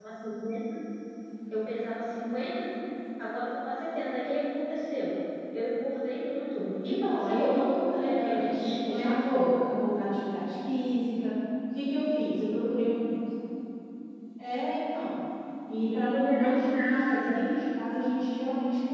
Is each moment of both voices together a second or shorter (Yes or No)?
No